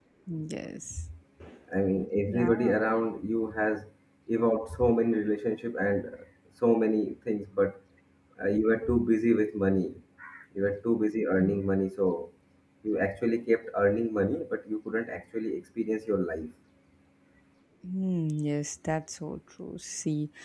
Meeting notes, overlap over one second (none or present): none